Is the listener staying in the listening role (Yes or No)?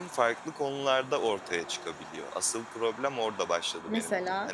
Yes